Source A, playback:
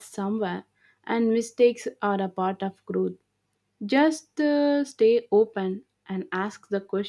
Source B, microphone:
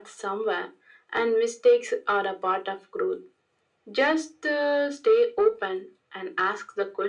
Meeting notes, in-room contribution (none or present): none